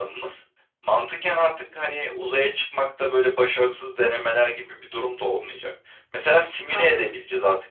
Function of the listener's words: listening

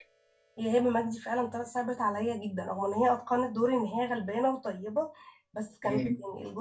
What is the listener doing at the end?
listening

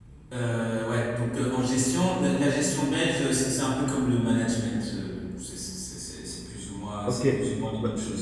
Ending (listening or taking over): taking over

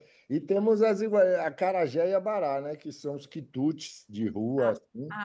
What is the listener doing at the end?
taking over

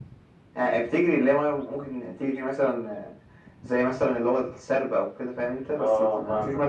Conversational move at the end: taking over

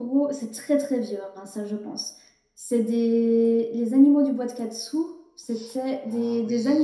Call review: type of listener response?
taking over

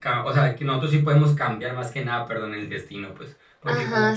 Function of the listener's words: taking over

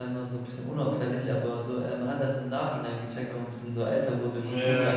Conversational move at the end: taking over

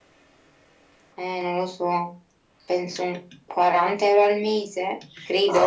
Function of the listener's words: taking over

